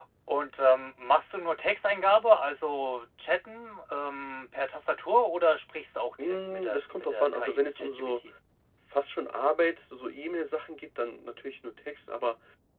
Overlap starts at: 6.2 s

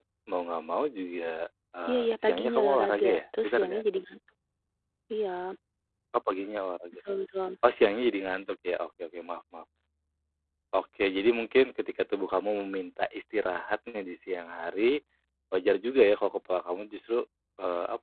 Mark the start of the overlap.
1.9 s

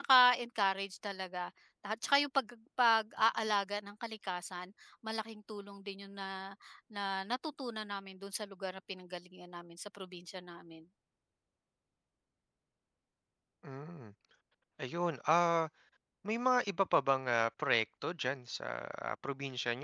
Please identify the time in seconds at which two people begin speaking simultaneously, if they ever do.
none

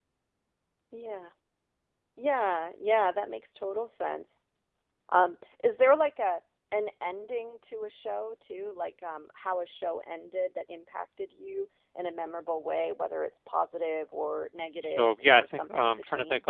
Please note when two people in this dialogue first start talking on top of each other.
15.0 s

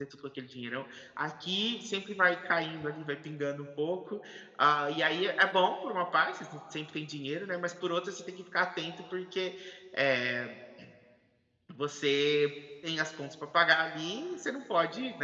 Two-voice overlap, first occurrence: none

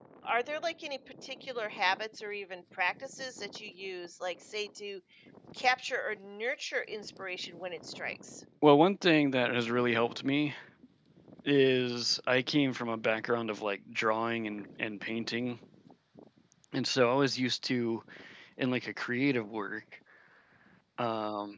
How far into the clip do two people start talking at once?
none

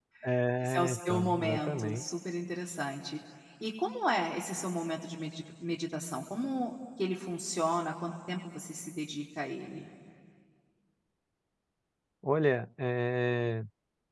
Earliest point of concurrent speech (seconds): 0.6 s

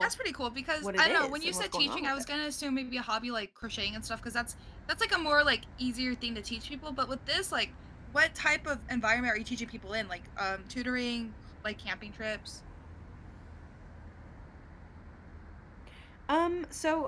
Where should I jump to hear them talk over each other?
0.8 s

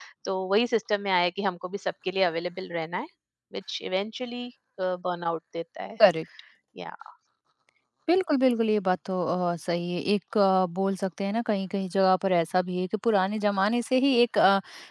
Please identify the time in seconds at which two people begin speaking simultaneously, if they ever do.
none

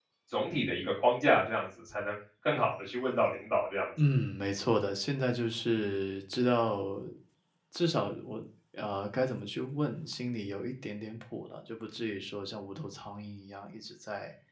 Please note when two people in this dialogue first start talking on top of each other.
none

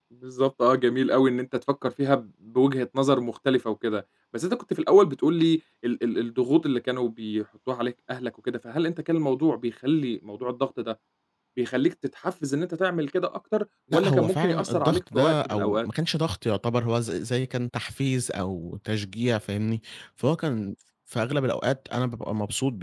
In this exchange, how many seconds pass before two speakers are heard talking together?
13.9 s

